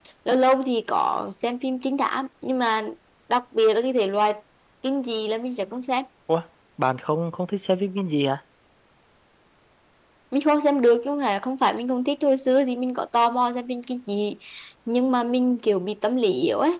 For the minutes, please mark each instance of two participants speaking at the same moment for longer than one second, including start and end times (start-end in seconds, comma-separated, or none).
none